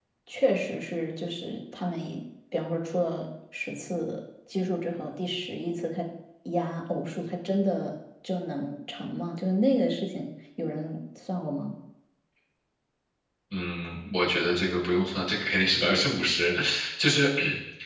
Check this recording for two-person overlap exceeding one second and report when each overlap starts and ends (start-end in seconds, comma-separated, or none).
none